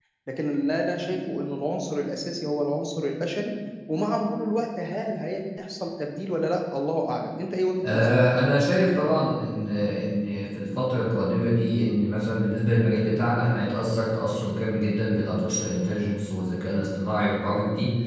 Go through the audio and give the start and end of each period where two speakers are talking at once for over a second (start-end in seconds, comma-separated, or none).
none